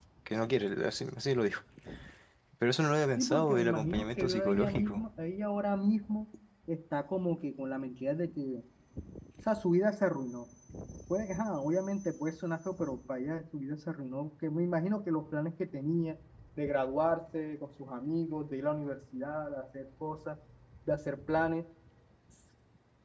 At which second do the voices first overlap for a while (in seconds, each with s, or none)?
3.2 s